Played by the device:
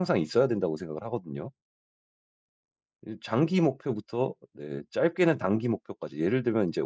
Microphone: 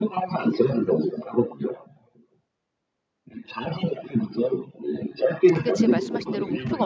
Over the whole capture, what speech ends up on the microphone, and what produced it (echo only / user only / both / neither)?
both